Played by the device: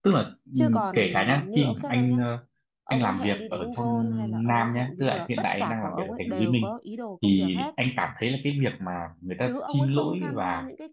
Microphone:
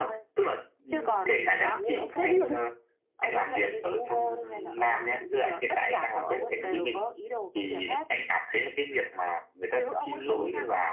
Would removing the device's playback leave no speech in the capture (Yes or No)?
No